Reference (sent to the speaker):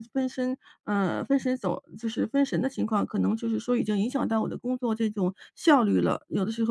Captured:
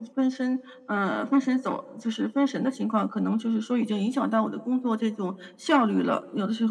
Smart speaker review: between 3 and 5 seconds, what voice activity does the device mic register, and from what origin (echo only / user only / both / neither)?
echo only